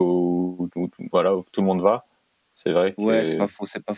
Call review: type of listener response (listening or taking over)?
taking over